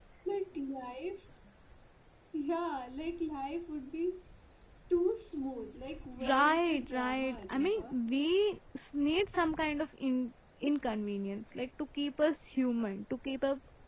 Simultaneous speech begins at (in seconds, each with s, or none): 6.2 s